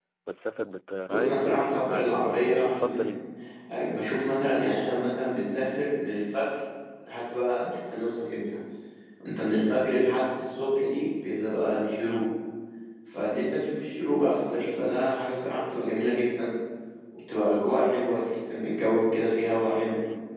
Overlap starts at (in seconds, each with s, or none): 1.1 s